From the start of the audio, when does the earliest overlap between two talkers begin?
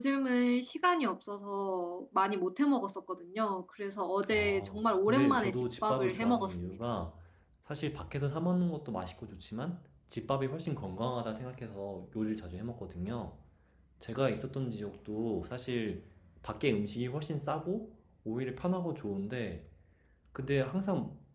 4.2 s

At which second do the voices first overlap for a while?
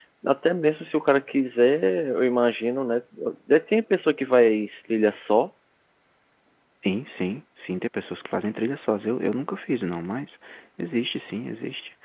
none

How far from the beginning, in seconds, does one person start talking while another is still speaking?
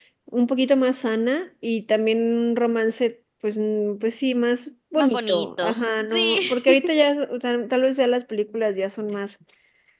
5.0 s

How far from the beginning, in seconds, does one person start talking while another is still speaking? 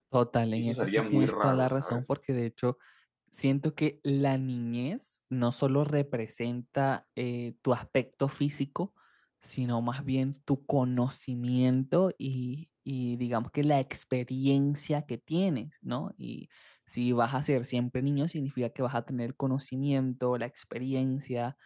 0.6 s

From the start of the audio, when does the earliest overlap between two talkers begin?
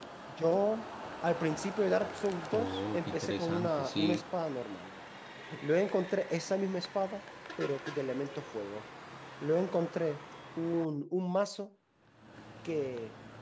2.5 s

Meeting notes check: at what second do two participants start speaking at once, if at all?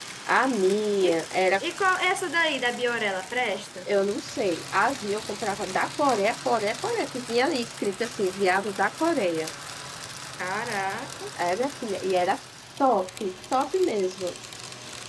none

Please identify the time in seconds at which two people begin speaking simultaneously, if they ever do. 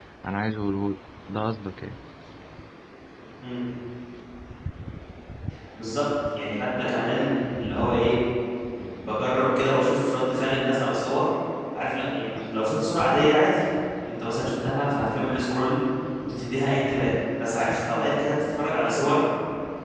none

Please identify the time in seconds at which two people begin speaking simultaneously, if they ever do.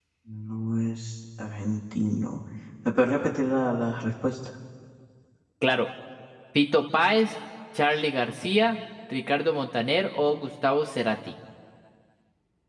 none

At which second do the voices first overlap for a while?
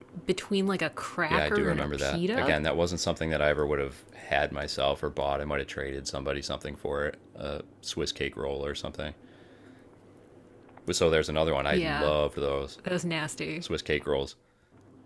1.3 s

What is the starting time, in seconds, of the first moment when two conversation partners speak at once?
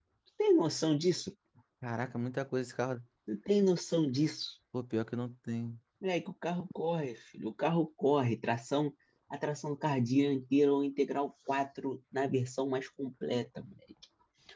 none

